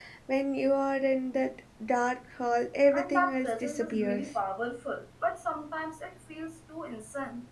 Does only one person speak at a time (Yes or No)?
No